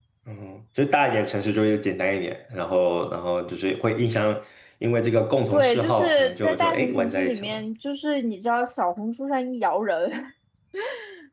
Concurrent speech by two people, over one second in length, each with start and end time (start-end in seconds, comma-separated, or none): 5.5-7.6